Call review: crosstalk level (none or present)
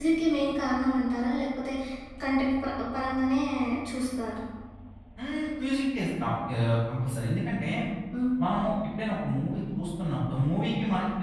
none